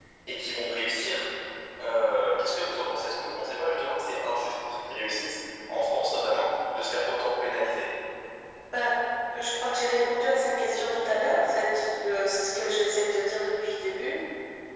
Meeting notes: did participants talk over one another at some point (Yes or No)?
No